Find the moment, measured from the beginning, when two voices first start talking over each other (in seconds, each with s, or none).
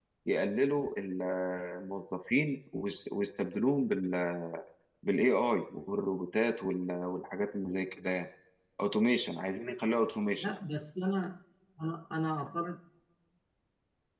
none